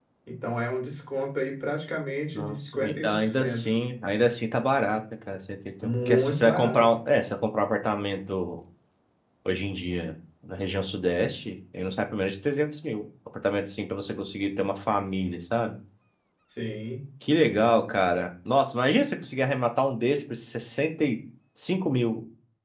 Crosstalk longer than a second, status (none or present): present